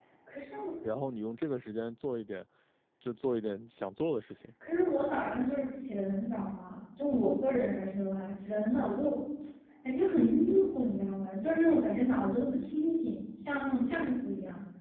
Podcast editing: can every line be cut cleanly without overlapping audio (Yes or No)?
Yes